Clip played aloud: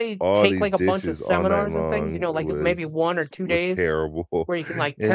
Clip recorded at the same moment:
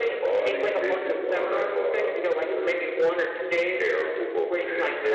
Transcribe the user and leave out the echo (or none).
none